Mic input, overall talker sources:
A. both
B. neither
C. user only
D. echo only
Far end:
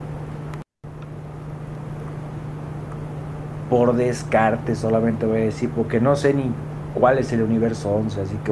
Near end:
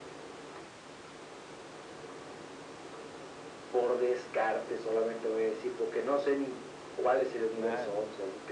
A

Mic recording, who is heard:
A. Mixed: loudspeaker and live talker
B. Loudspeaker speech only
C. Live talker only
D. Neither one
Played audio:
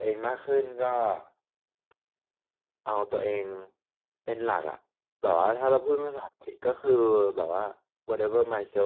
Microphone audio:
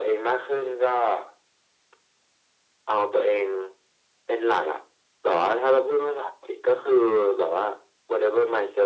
B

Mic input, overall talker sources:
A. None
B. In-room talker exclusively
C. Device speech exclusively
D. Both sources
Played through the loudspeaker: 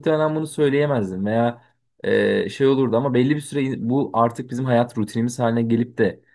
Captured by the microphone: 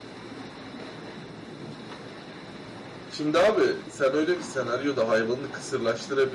B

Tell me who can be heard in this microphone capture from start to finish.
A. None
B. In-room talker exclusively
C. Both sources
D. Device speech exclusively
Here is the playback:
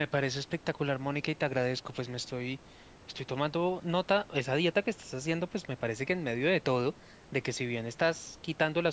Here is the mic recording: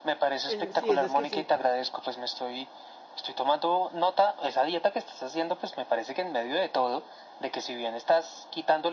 C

